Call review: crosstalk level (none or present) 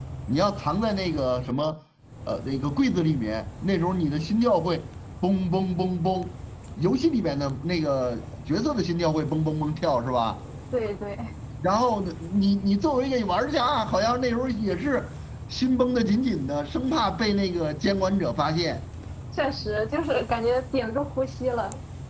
none